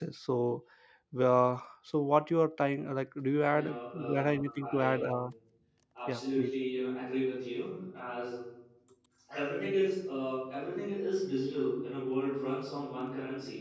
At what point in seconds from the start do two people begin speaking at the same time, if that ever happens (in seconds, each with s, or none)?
3.5 s